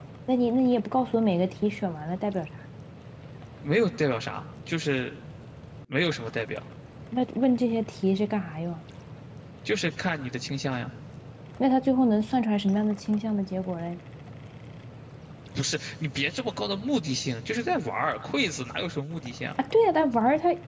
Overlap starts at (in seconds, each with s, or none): none